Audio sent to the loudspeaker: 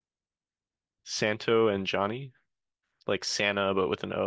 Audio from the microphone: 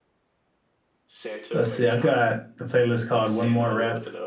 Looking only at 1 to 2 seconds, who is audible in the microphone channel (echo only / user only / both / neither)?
both